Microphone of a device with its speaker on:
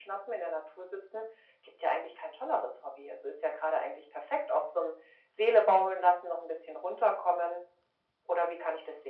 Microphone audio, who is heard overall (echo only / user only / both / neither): echo only